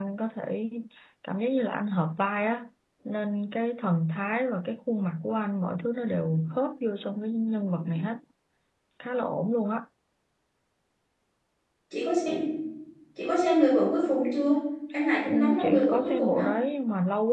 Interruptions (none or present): present